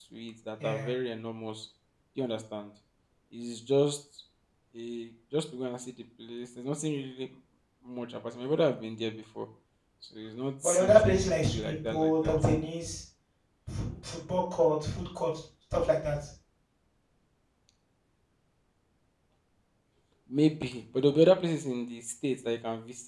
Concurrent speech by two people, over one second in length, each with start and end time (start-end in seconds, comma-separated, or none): 10.6-12.4